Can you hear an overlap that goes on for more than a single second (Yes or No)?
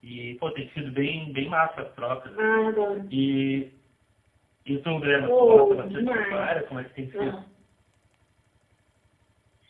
Yes